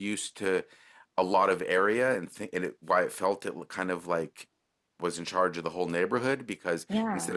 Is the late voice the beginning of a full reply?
No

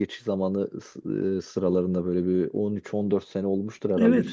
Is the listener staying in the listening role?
Yes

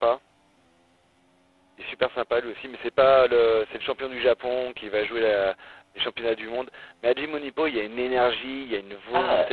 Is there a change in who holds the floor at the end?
Yes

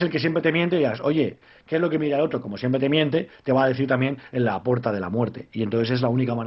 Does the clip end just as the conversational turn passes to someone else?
No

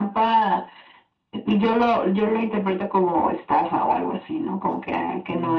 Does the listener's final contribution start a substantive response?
Yes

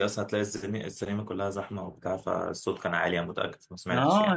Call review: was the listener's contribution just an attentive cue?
No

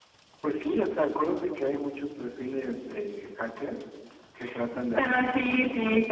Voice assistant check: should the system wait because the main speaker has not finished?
No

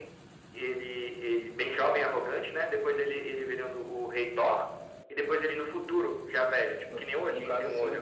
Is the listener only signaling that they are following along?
No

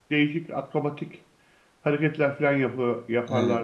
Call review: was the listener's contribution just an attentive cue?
No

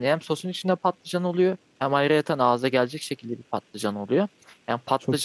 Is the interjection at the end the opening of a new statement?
No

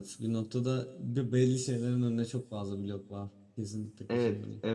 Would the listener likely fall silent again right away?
No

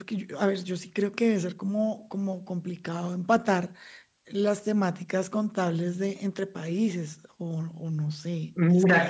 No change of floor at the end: No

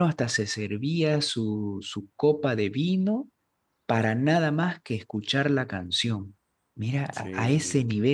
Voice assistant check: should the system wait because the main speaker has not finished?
Yes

